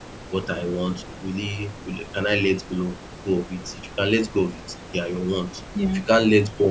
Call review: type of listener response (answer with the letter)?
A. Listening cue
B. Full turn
A